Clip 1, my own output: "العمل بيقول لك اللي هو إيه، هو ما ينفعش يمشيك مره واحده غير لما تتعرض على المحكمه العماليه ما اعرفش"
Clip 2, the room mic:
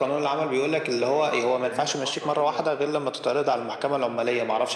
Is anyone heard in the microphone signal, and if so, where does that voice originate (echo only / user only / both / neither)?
both